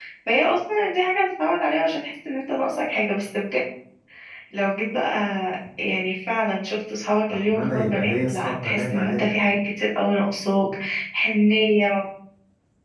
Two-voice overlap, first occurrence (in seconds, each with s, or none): 7.3 s